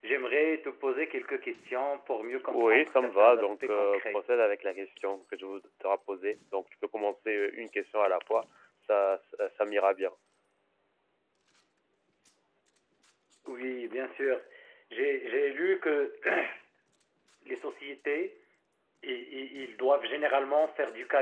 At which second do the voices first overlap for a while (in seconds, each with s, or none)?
2.4 s